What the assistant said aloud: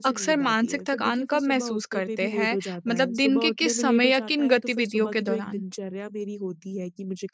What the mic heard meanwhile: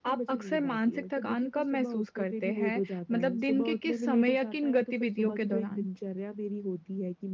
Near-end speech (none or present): none